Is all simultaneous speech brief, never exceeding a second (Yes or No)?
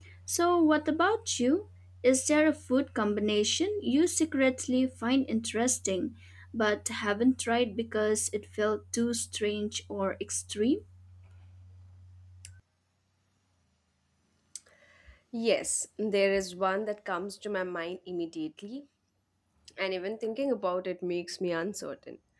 Yes